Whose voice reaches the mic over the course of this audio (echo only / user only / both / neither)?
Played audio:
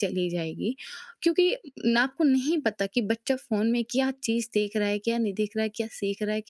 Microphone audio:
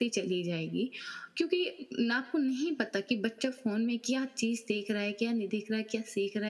echo only